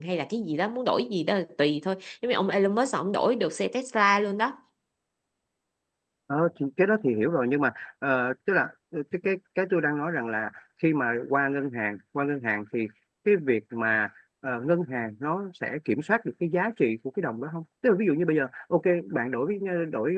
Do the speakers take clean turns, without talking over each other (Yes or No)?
Yes